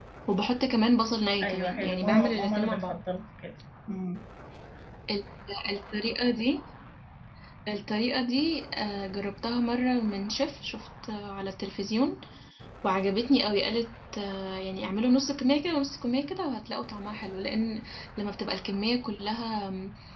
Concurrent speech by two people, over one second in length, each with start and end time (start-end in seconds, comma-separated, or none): 1.4-3.0